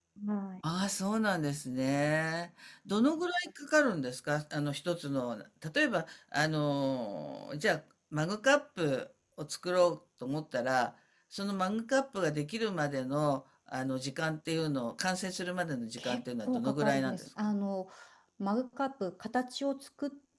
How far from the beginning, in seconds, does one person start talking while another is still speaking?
16.0 s

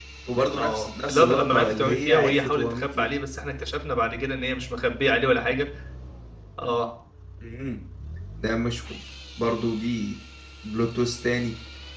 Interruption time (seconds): 0.6 s

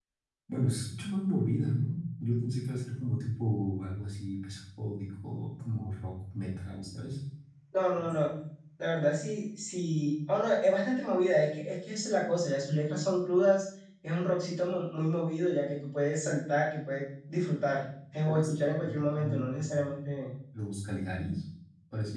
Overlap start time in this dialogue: 18.2 s

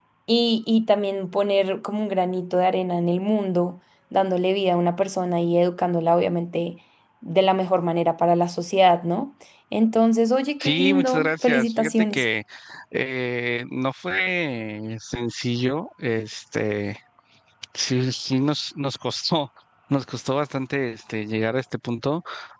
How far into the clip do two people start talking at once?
10.6 s

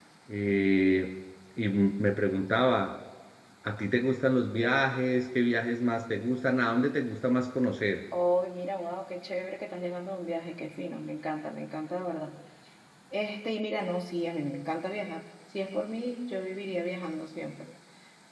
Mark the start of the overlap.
none

